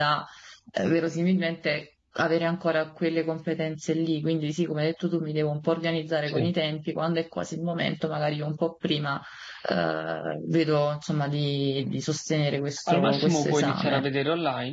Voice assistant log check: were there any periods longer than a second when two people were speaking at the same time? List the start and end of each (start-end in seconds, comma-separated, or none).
12.9-14.1